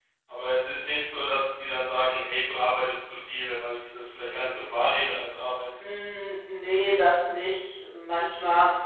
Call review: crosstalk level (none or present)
none